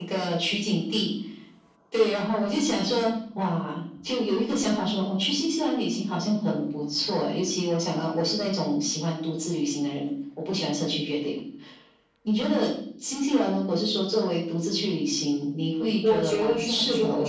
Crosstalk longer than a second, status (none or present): present